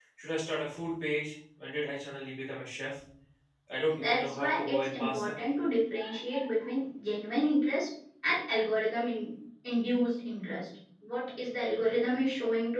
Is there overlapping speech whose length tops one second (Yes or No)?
Yes